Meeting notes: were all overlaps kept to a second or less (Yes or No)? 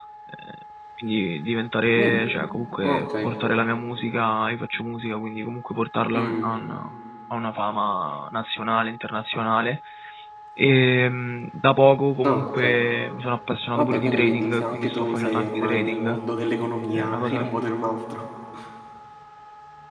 No